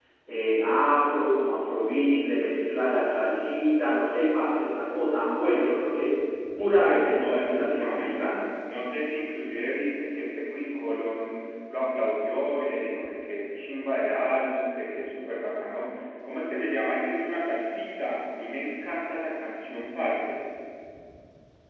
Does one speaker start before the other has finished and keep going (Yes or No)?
Yes